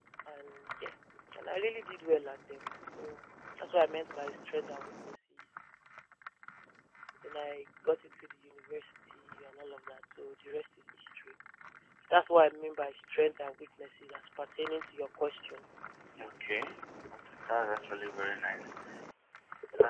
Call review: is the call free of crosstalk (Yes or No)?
Yes